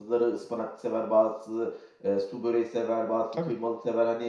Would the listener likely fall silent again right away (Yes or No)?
Yes